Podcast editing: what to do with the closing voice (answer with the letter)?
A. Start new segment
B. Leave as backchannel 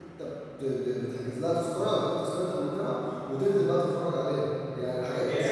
A